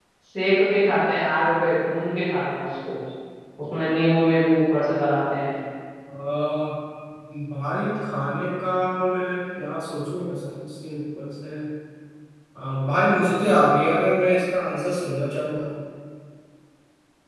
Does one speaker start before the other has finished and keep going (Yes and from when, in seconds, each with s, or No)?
No